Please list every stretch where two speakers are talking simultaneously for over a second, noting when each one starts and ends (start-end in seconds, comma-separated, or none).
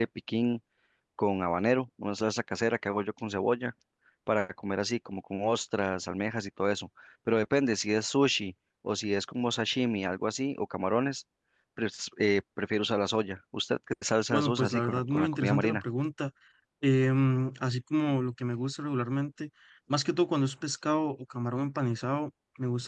14.3-15.8